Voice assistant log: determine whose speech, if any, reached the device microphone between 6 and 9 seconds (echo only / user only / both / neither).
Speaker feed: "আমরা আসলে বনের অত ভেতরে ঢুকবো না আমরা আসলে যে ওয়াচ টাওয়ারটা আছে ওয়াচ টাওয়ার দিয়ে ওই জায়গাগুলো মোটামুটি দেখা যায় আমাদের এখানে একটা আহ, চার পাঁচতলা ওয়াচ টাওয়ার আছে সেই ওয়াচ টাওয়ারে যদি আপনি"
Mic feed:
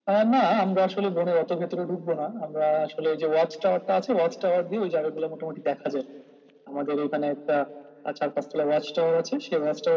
echo only